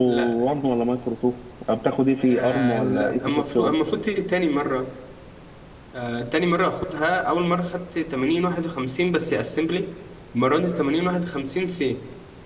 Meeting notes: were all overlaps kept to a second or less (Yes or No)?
No